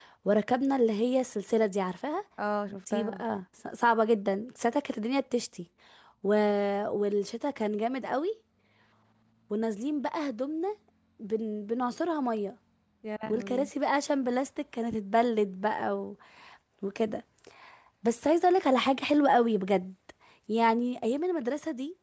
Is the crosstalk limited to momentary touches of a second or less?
Yes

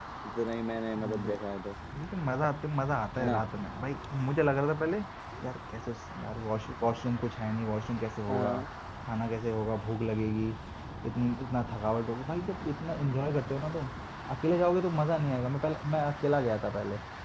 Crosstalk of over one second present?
No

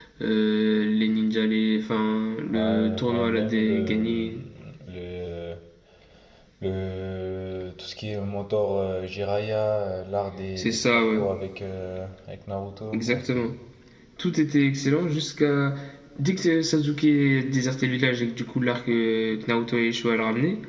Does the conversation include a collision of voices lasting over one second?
Yes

